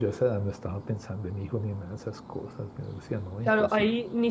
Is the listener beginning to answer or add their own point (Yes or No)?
Yes